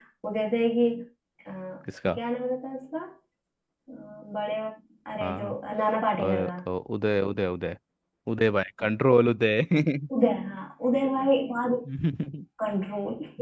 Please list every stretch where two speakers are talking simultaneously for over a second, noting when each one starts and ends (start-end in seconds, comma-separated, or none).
none